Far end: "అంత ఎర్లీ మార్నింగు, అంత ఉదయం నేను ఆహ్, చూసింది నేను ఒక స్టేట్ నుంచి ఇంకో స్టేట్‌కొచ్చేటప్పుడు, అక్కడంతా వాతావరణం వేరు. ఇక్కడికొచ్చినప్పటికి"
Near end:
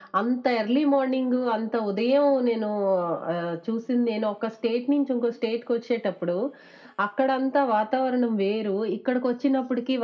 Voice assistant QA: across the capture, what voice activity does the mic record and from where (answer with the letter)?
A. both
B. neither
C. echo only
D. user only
C